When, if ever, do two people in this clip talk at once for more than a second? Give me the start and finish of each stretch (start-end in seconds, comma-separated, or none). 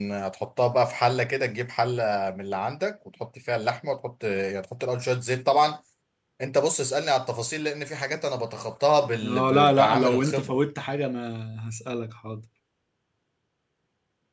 9.2-10.6